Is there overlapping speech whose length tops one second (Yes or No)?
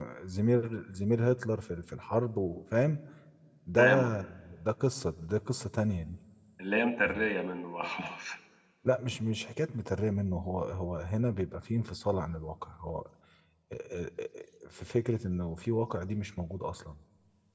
No